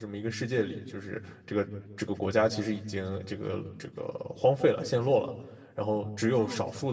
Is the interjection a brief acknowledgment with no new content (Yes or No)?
Yes